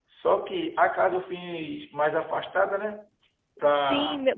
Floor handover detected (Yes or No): Yes